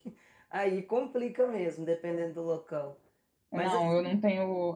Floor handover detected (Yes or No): Yes